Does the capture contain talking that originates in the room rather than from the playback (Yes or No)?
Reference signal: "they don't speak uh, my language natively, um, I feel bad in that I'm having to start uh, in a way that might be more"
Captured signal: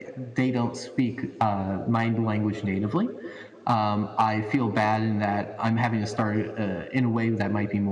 No